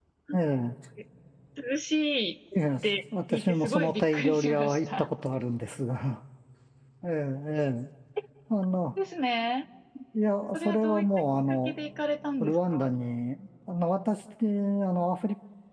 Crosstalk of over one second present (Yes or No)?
Yes